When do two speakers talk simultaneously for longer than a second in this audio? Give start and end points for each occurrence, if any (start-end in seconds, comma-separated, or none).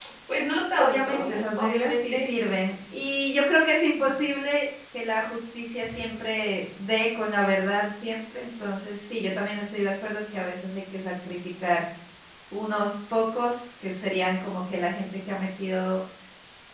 0.8-2.2